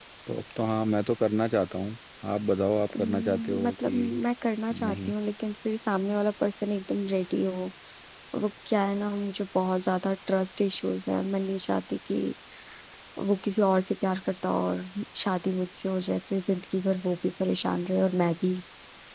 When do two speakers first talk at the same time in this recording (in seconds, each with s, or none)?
3.0 s